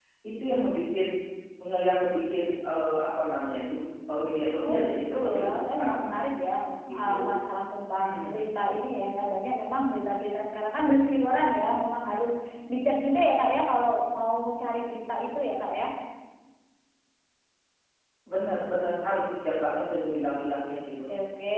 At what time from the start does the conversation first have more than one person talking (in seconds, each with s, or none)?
4.6 s